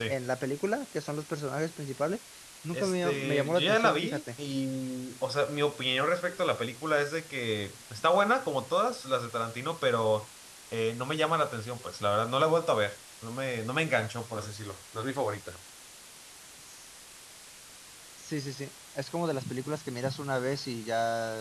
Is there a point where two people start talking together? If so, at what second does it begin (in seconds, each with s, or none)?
2.7 s